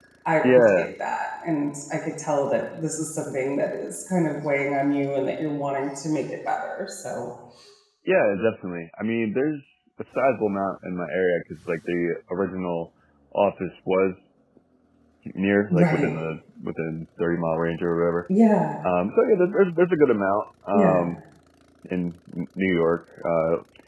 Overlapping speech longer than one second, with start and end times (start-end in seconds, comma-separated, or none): none